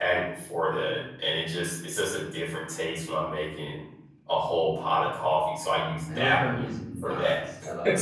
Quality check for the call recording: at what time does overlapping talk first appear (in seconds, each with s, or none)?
6.1 s